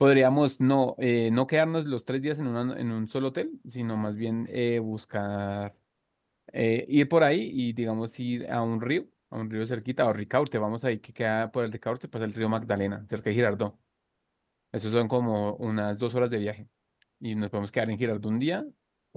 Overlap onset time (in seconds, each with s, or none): none